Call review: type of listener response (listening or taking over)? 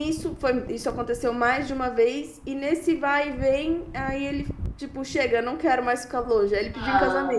taking over